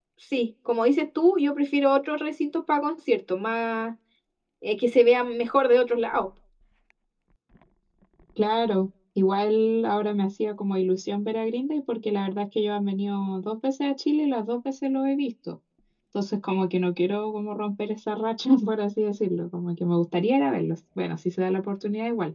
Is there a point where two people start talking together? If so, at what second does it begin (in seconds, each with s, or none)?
none